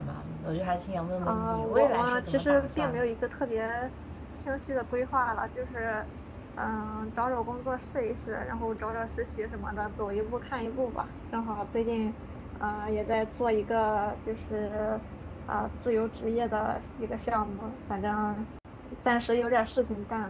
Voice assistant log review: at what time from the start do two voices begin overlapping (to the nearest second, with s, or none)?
1 s